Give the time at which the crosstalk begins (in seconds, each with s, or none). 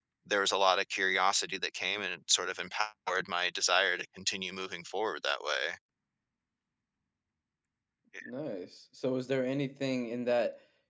none